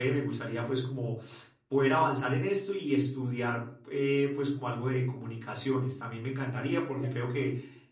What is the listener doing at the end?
listening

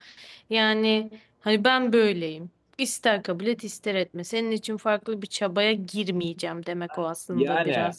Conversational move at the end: taking over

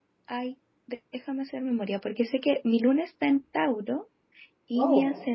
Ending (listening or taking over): listening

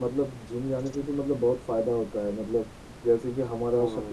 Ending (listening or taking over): listening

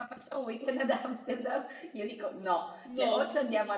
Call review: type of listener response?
listening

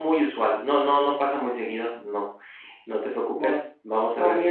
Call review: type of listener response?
taking over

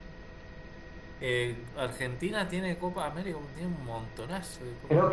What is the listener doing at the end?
taking over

